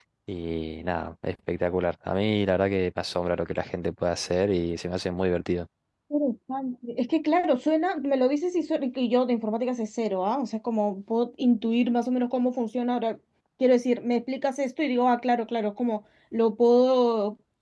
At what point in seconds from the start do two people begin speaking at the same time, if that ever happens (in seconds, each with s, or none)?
none